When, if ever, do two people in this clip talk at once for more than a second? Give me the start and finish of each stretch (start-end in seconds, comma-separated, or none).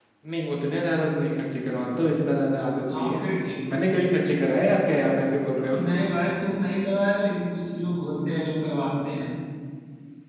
none